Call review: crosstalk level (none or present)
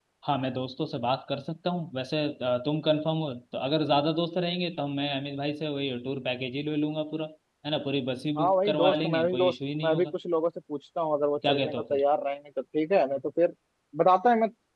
present